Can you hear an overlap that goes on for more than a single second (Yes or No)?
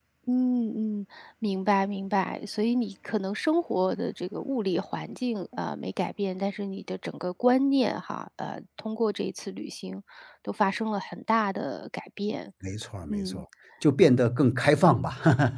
No